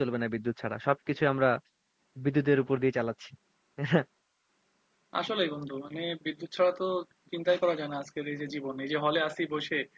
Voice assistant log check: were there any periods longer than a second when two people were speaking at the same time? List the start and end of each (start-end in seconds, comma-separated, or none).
none